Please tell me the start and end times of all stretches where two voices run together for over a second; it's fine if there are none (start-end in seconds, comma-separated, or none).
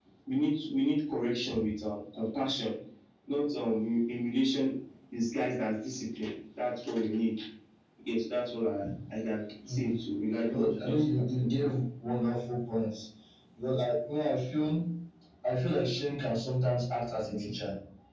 10.5-11.7